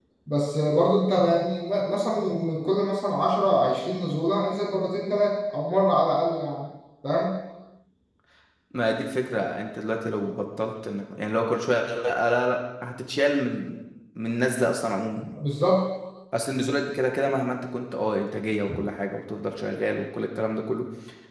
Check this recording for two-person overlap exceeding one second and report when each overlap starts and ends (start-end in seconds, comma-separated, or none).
none